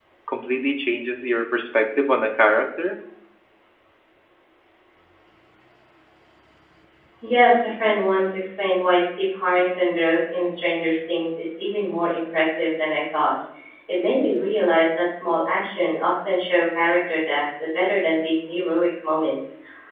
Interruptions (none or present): none